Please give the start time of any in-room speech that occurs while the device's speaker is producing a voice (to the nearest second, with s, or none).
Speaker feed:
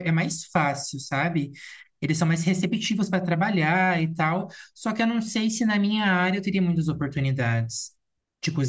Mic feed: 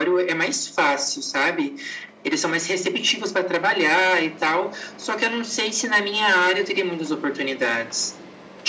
none